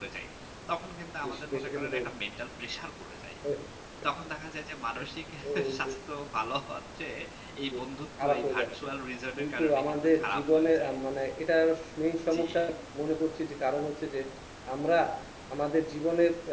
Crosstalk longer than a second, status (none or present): present